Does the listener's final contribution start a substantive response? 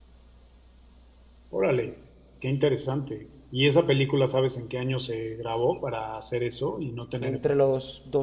Yes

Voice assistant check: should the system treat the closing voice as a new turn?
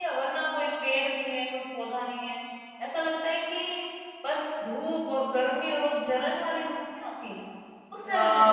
Yes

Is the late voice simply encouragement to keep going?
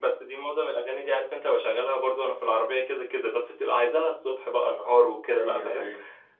No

